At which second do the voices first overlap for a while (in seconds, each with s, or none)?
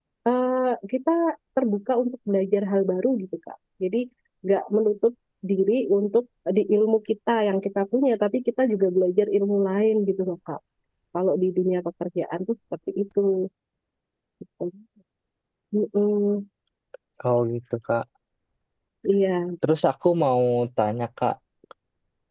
none